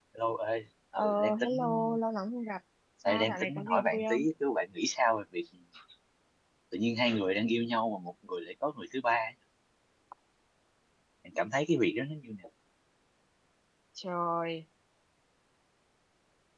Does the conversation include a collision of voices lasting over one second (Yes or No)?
Yes